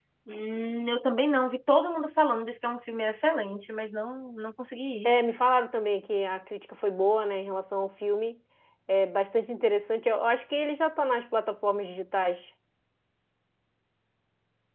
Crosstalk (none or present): none